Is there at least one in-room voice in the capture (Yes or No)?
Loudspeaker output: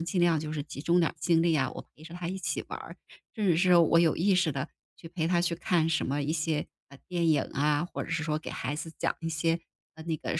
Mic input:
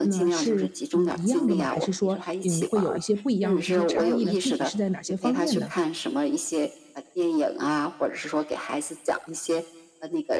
Yes